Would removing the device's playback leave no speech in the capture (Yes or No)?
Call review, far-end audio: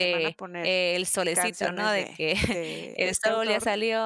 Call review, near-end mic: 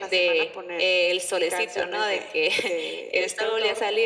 Yes